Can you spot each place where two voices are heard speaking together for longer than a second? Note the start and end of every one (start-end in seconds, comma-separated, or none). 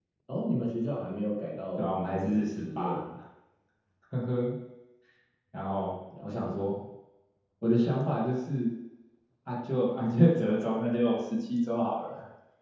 1.8-3.0